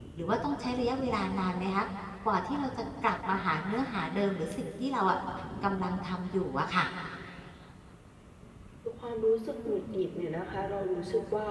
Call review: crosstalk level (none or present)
none